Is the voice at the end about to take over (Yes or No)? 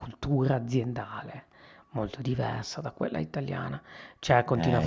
No